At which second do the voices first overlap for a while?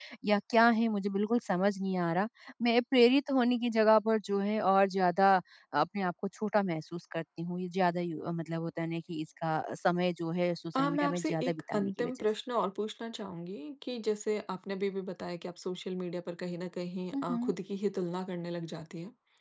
10.8 s

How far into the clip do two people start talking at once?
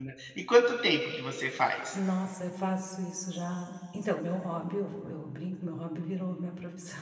none

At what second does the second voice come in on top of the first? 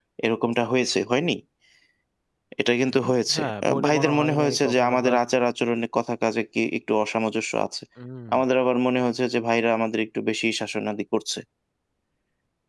2.9 s

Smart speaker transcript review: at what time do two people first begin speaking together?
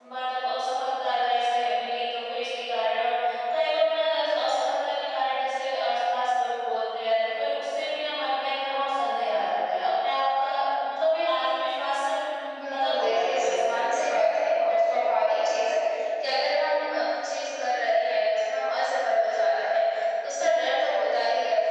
12.7 s

